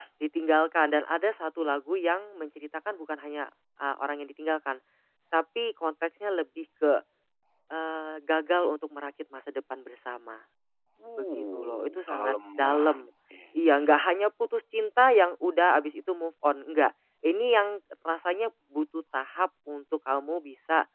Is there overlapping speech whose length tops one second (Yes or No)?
Yes